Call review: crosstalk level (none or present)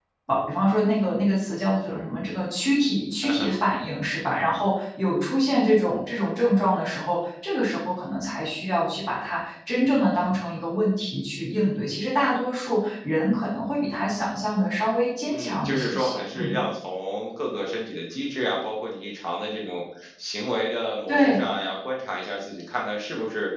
present